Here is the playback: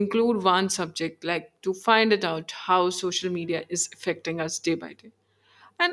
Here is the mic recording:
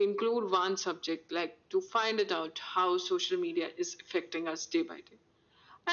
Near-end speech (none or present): none